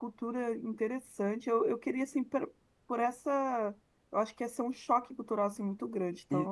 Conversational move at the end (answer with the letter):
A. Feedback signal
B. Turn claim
B